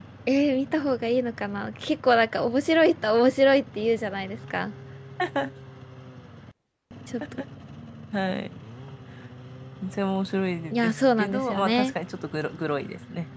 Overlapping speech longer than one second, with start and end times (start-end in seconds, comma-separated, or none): 10.7-11.9